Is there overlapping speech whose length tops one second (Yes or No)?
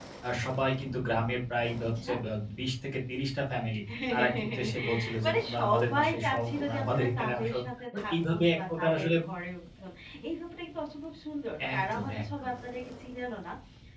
Yes